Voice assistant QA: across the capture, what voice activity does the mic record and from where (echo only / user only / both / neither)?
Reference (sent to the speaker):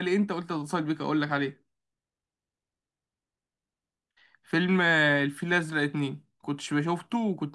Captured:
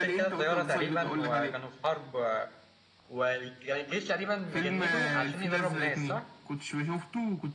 both